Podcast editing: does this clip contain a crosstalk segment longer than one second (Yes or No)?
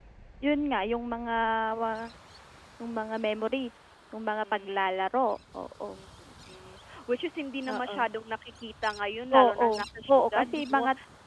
Yes